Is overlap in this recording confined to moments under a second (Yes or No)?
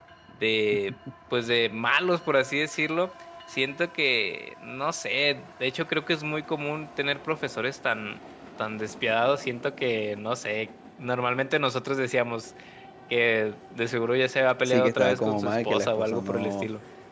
No